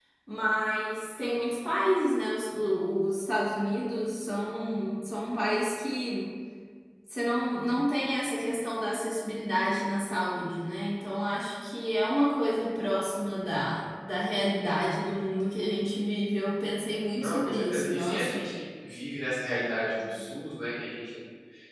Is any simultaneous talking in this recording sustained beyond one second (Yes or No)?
Yes